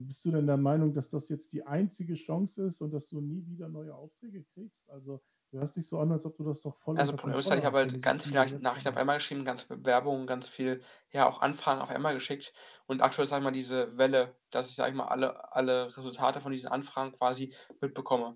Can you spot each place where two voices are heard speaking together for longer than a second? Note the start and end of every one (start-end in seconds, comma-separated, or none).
7.0-9.0